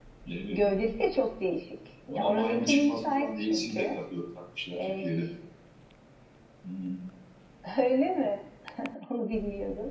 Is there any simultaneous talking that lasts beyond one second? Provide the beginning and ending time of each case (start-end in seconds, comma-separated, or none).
2.1-4.0